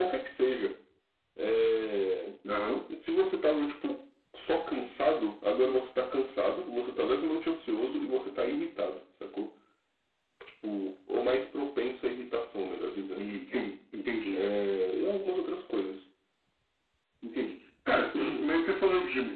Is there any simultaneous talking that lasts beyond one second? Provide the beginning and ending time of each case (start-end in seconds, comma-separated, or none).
none